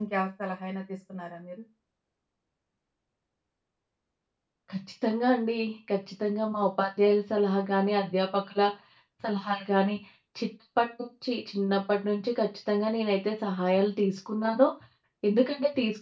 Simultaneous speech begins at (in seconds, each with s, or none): none